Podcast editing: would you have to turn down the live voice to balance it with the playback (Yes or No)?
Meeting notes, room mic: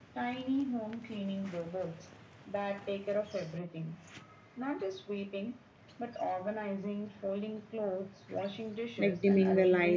Yes